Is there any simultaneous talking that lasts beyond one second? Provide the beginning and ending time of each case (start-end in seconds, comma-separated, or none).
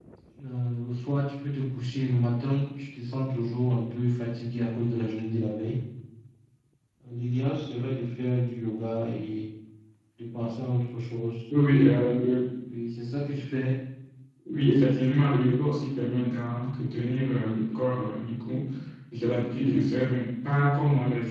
none